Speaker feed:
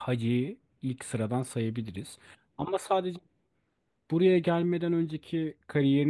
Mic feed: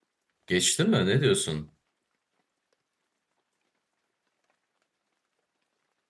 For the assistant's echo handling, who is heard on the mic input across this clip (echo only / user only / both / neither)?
user only